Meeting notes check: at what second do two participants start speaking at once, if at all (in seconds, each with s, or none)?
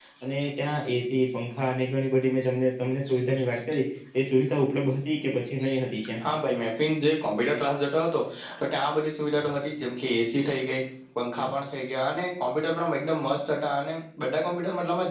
none